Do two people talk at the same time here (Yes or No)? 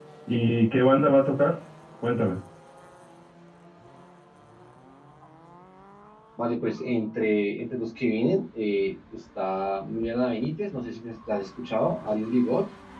No